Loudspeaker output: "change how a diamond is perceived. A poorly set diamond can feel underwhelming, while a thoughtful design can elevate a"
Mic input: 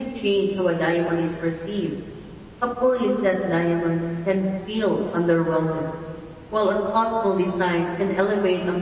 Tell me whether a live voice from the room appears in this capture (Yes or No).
No